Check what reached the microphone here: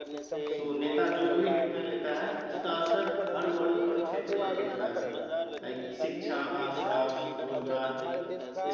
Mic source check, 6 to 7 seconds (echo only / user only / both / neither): both